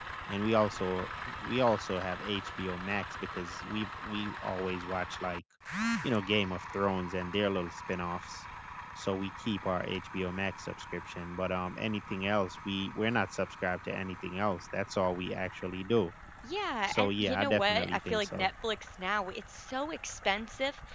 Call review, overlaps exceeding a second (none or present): present